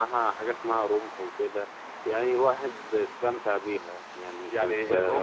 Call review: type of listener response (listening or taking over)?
taking over